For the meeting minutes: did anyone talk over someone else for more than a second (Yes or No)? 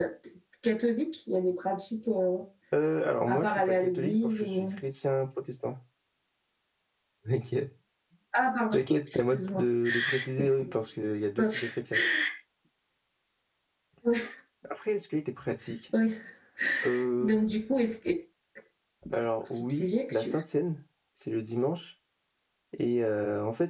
Yes